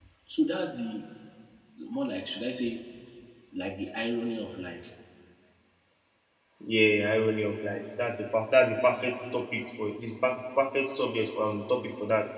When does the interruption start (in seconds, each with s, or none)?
none